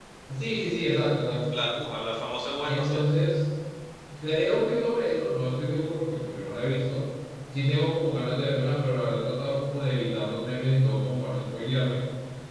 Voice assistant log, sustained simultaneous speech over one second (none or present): none